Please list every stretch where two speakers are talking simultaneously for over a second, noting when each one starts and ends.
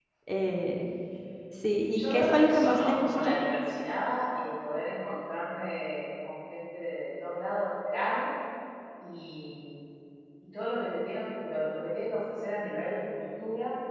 1.9-3.4

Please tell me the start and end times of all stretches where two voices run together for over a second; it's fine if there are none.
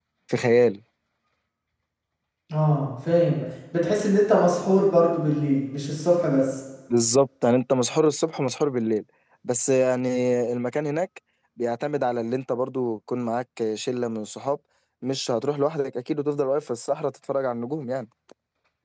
none

